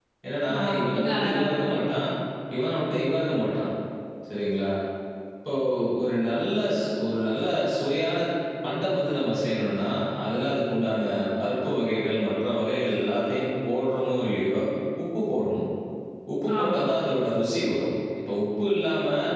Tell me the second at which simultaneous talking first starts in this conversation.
0.5 s

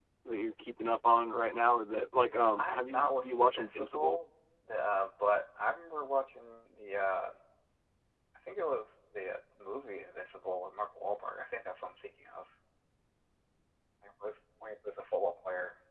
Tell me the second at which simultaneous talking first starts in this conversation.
2.6 s

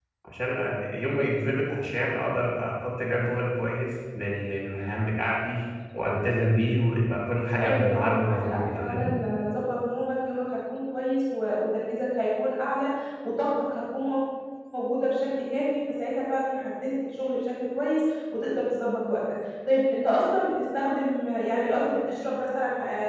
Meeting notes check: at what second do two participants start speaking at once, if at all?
7.6 s

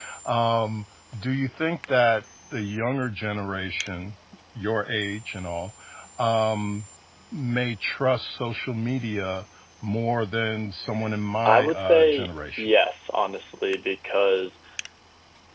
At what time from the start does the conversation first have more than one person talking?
11.4 s

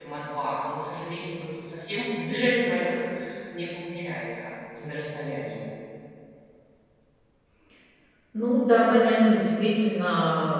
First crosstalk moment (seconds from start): none

